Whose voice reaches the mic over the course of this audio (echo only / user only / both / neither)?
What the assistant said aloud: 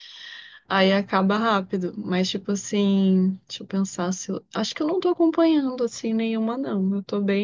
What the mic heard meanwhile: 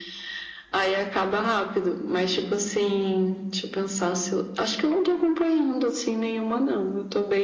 echo only